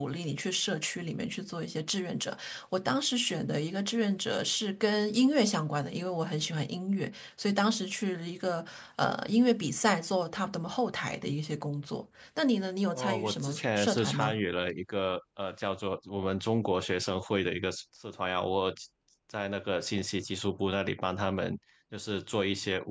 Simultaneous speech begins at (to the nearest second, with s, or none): 13 s